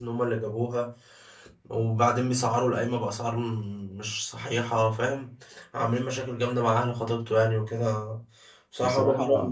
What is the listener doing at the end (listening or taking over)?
listening